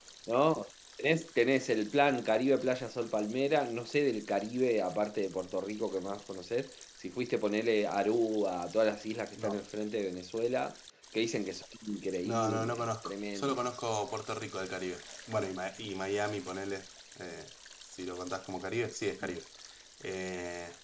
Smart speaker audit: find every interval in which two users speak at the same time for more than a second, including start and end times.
12.2-13.7

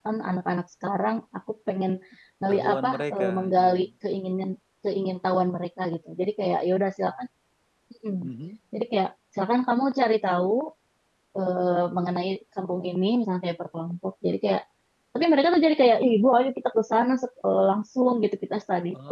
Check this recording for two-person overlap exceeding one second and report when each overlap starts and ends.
2.5-3.8

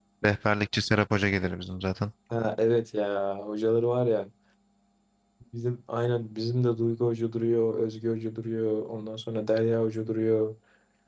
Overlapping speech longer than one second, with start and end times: none

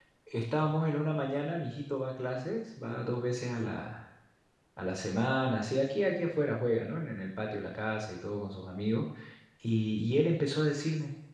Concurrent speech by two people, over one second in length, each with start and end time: none

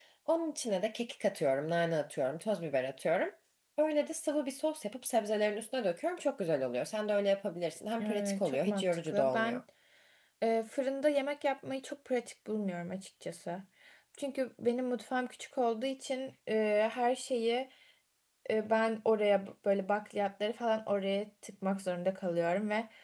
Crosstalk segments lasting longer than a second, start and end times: 8.0-9.6

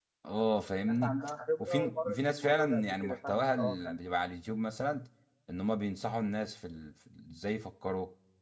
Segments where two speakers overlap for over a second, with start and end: 1.6-4.0

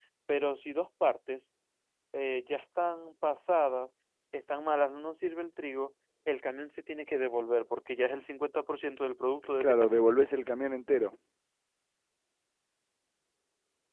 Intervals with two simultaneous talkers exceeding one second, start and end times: none

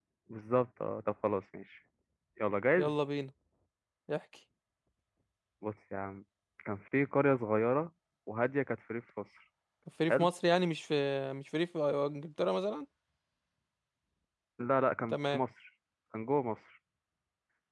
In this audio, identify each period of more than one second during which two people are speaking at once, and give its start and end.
none

